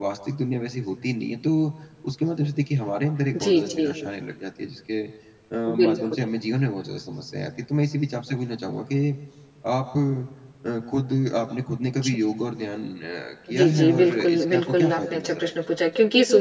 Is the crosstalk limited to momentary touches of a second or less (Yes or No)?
No